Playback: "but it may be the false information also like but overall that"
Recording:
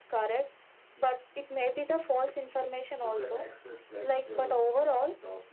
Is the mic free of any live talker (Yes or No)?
No